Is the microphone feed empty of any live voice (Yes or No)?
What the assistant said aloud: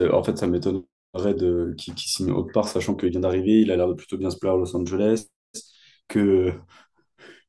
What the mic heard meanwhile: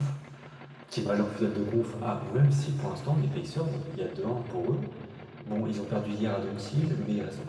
No